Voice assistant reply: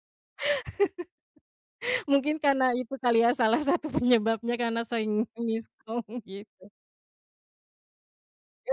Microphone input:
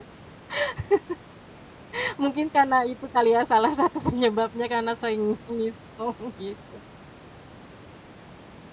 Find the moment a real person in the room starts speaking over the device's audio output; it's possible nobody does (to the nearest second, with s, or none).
none